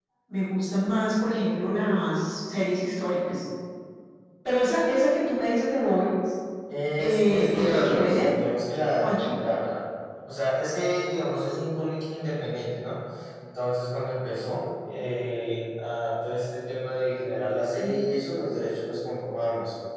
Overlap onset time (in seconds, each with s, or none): 7.0 s